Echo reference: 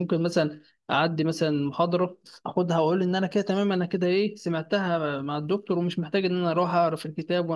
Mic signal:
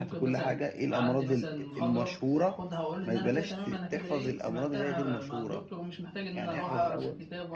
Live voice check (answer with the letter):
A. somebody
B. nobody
A